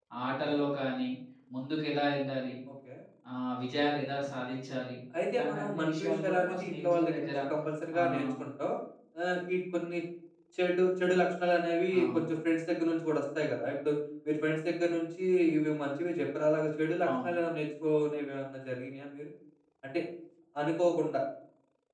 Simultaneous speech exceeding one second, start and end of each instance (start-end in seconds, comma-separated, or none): 5.3-7.3